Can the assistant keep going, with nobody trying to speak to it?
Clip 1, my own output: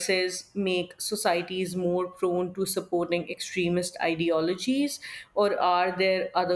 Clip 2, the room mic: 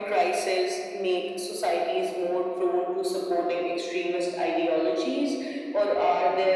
Yes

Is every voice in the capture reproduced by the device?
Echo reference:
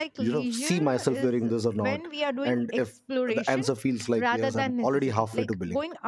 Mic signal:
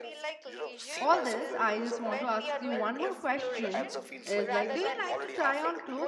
No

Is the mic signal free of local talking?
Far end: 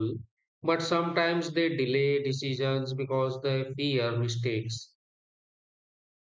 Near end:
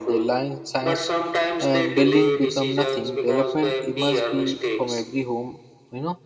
No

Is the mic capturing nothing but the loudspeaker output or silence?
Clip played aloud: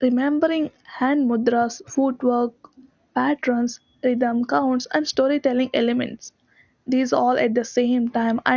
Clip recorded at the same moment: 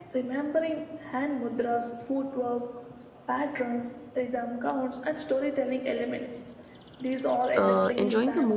No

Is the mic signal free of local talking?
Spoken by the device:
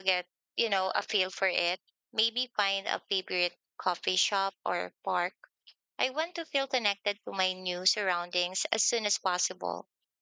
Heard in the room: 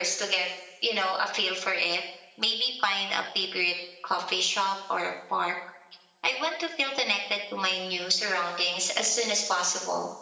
Yes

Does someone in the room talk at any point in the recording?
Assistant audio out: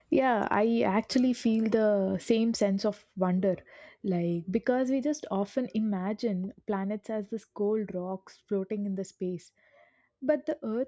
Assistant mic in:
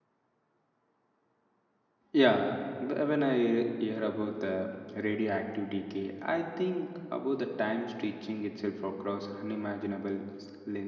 Yes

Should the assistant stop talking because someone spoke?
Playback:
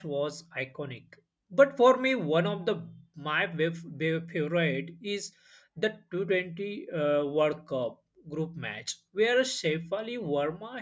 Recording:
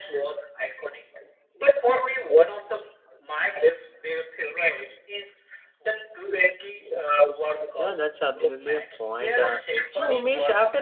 Yes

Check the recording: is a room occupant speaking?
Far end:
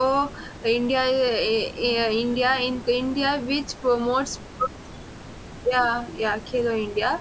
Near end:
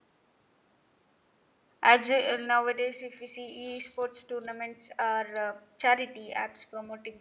Yes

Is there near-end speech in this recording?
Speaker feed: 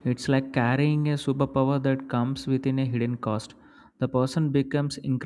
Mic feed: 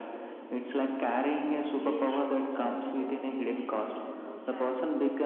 Yes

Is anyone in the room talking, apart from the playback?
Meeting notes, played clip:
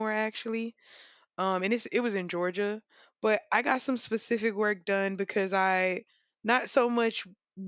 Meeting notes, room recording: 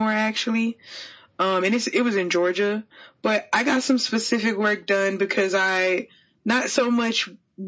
No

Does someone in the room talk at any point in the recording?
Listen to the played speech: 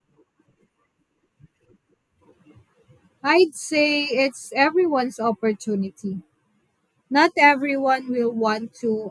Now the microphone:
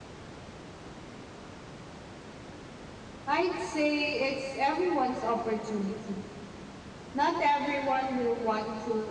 No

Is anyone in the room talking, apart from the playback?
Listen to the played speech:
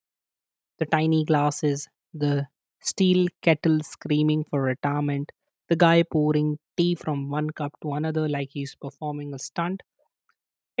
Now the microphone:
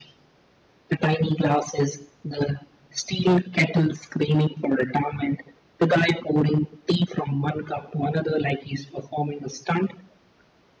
No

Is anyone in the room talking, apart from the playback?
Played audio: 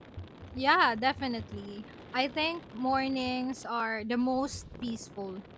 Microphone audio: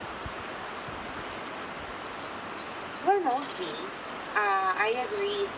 Yes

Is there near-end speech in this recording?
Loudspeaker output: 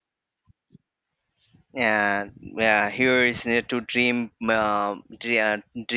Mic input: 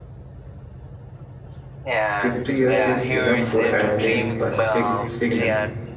Yes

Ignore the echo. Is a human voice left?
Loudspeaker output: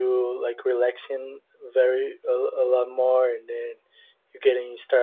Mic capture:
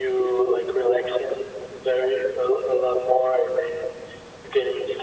No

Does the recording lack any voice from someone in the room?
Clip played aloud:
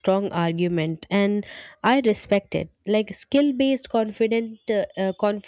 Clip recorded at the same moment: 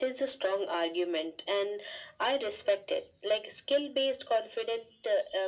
Yes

